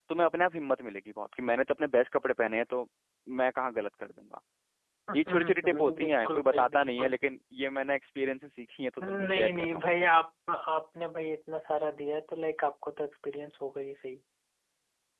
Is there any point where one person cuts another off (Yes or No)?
Yes